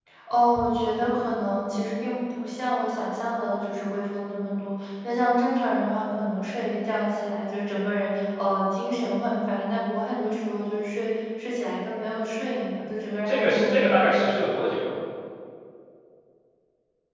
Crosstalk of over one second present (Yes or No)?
Yes